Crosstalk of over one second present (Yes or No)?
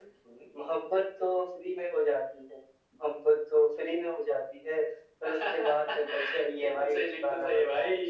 Yes